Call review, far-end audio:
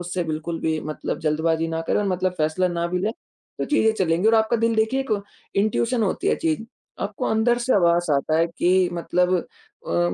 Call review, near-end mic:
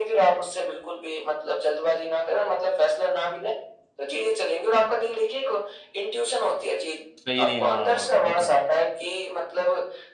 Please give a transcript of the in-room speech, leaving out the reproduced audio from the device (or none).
सही नहीं है, हाँ, वो तो है।